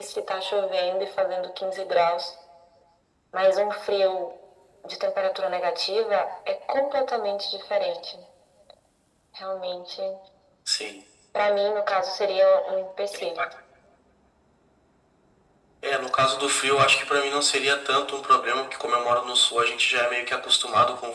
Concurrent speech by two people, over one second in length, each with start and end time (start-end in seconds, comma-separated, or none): none